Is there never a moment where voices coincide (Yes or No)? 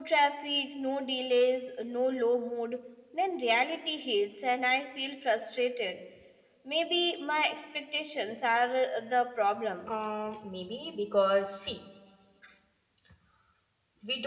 Yes